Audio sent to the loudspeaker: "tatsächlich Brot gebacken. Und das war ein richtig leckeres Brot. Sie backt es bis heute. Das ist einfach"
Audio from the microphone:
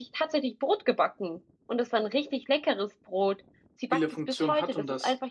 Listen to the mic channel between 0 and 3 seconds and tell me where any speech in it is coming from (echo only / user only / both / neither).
echo only